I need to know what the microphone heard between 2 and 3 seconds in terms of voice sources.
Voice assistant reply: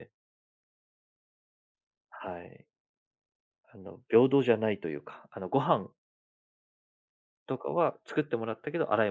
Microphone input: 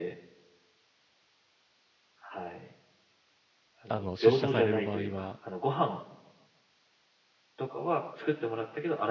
echo only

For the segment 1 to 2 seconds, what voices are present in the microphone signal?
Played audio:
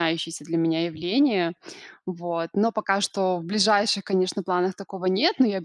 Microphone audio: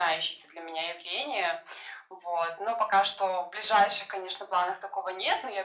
echo only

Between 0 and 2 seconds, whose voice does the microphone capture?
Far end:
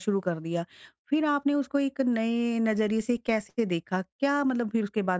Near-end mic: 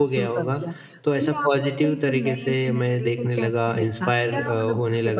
both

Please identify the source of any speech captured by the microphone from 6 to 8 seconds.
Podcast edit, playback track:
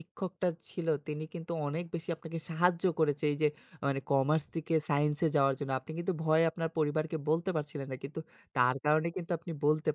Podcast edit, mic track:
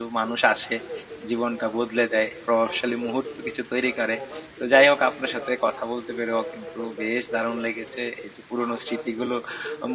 both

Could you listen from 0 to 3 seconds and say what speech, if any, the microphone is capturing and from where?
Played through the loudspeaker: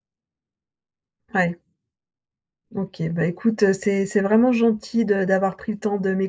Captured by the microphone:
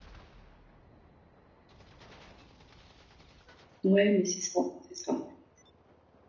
neither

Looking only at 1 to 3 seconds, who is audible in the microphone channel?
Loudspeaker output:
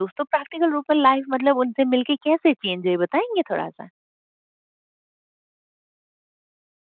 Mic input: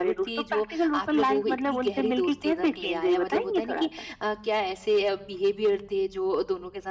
both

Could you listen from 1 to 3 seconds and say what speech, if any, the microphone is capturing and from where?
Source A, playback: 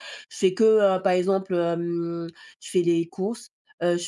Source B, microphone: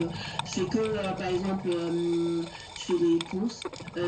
echo only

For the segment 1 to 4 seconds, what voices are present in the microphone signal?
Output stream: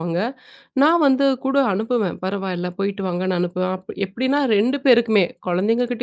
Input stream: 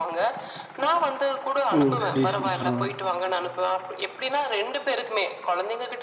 both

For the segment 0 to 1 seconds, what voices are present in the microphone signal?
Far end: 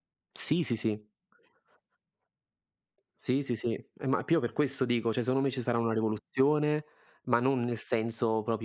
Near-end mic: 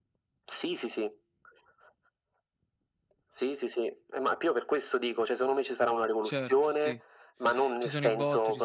echo only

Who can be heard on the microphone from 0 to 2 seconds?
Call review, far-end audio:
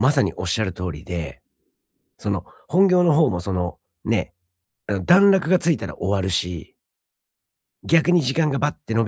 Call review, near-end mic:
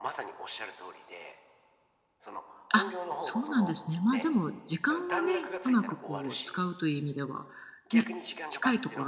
echo only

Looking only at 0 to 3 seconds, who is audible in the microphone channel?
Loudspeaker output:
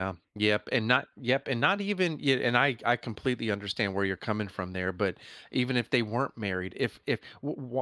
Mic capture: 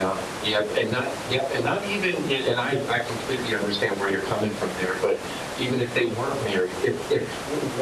echo only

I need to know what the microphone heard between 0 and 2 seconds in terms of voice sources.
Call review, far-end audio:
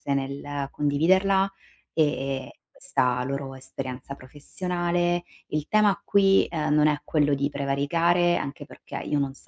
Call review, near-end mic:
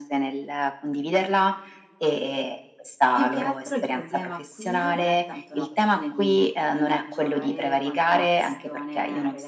echo only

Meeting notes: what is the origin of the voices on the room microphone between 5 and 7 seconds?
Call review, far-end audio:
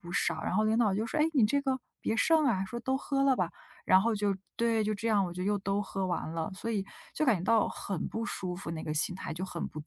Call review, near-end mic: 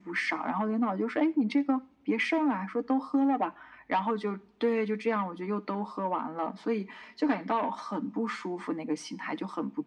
echo only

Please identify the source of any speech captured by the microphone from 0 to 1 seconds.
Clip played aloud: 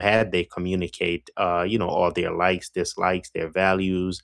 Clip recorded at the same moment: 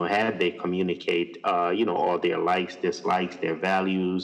echo only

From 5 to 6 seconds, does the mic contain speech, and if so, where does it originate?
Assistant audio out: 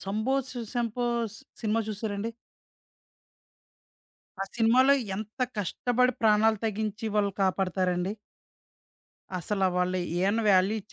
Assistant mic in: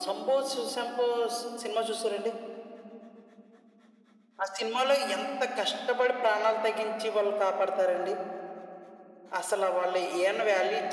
echo only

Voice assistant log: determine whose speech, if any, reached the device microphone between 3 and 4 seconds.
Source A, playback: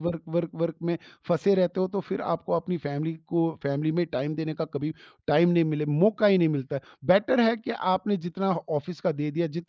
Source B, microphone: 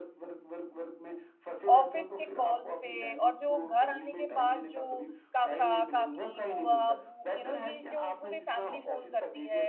both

